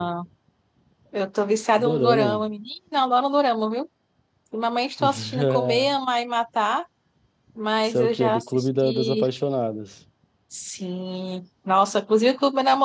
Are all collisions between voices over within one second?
No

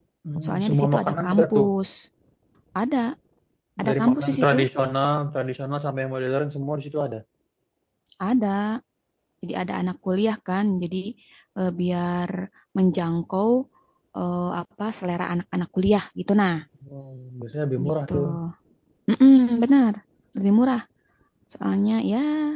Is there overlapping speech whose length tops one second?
Yes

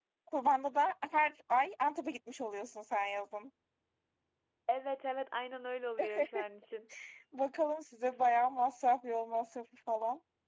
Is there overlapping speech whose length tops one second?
No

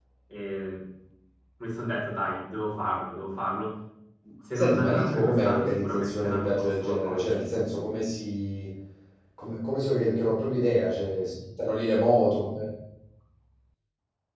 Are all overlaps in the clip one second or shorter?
No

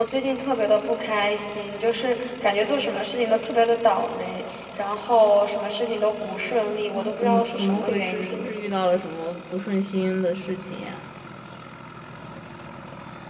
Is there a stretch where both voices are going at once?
Yes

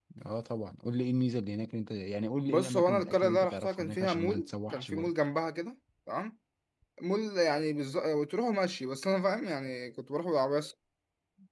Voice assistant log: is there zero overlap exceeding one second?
No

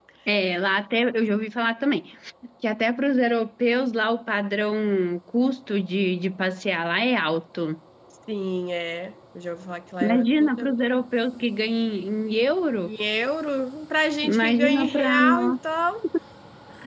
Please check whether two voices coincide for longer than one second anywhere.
Yes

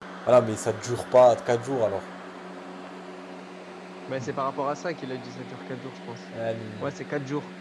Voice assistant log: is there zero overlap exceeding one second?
Yes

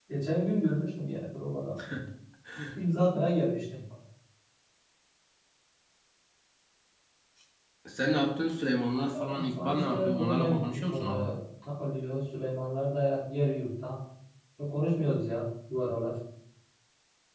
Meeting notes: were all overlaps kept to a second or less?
No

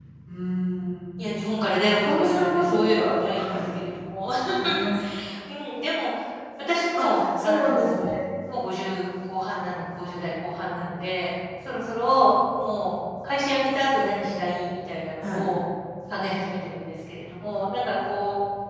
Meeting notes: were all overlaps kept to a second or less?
No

